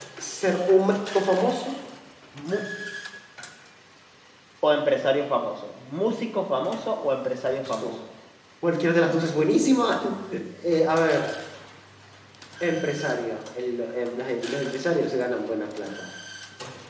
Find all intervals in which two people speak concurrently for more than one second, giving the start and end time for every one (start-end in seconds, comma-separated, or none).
none